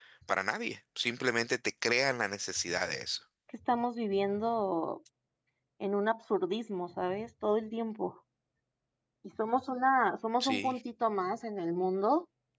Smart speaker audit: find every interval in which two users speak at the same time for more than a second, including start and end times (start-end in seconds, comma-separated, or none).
none